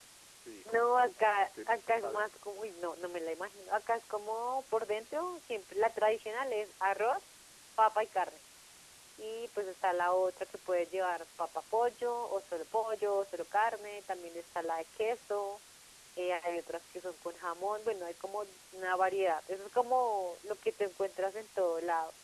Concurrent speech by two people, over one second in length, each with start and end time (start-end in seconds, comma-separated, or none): 0.7-2.3